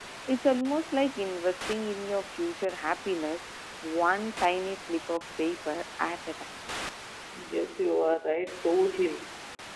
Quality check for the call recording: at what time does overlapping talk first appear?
none

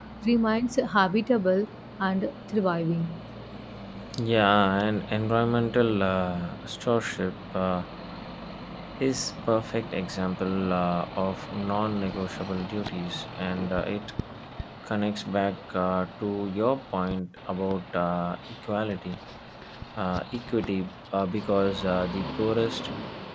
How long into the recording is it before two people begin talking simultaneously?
none

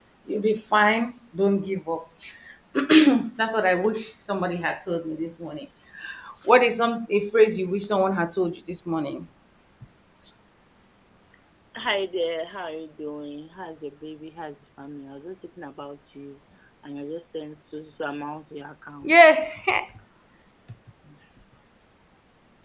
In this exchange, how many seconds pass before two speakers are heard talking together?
none

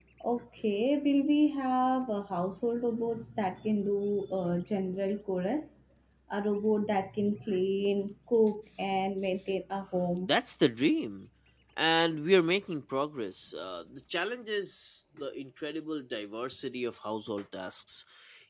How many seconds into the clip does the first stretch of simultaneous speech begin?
none

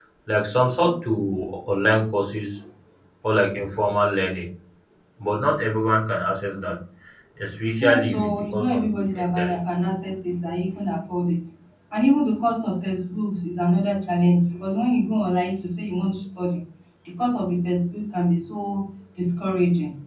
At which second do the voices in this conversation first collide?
7.8 s

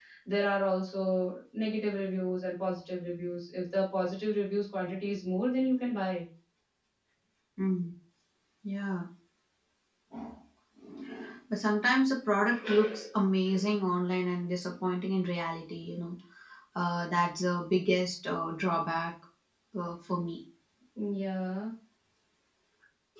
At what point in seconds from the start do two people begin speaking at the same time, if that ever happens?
none

